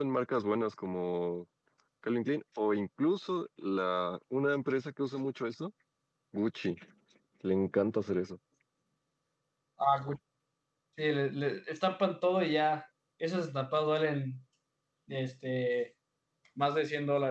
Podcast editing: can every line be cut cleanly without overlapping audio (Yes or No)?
Yes